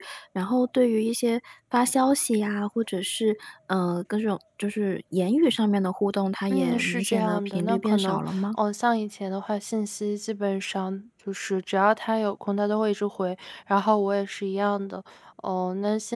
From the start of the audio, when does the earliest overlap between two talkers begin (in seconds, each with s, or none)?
6.5 s